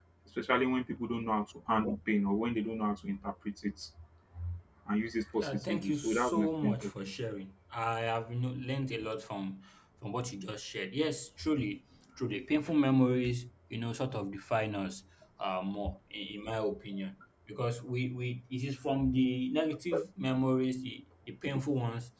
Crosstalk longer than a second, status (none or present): present